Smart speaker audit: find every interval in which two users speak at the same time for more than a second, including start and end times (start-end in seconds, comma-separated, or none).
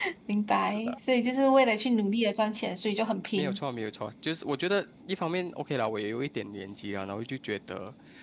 none